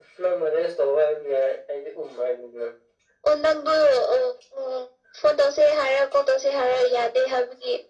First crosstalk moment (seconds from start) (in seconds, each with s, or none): none